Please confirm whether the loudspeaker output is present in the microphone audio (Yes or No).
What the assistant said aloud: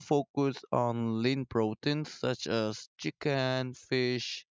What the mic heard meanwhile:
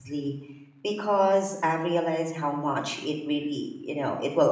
No